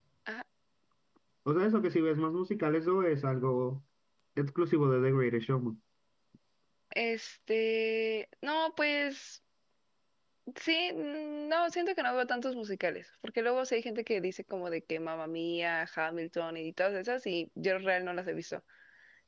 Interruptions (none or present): none